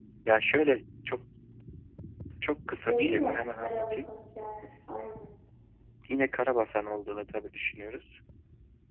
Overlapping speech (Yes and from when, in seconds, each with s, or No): Yes, from 2.9 s